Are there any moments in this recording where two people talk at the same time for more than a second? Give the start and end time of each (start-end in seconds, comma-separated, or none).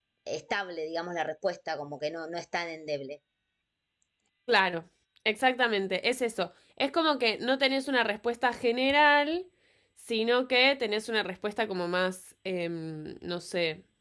none